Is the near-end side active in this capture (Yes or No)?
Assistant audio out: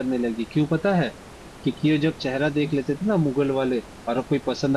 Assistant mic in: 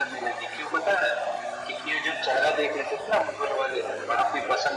No